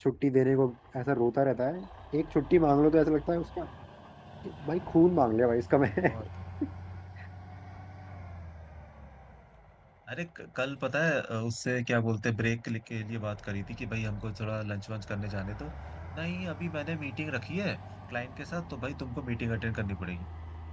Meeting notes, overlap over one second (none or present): none